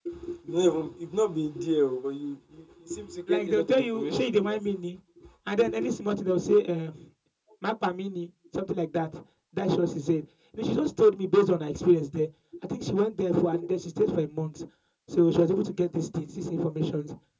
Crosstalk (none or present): present